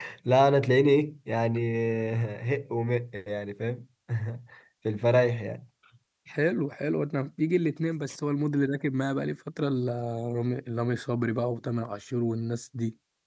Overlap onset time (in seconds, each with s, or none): none